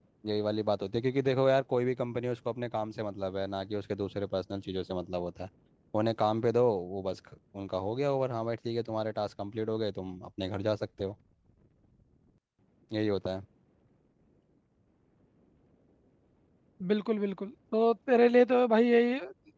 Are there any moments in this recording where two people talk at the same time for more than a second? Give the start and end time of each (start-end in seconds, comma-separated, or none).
none